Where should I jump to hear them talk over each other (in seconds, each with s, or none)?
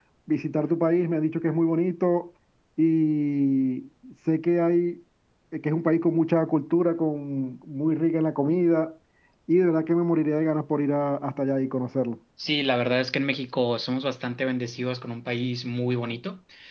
none